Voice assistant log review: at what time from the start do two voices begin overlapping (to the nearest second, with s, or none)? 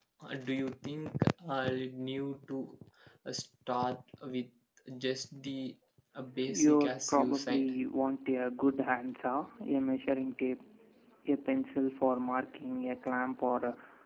6 s